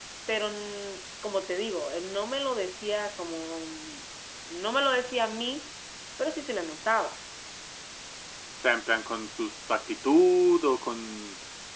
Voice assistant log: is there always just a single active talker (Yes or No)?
Yes